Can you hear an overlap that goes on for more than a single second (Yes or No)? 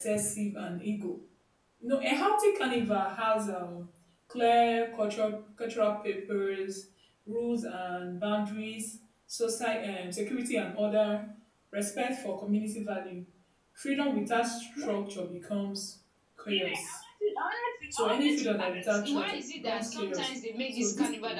Yes